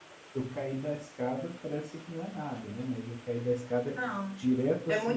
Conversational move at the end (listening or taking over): taking over